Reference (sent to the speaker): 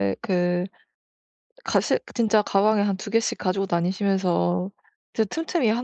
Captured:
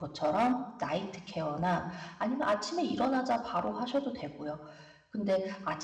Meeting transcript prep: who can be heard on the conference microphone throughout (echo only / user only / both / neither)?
user only